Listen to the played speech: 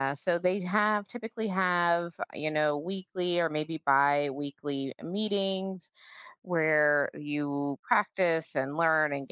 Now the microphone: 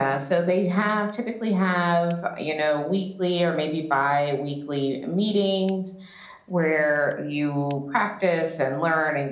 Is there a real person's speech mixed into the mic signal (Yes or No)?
No